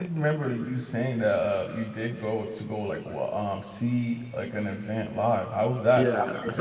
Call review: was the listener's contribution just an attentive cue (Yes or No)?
No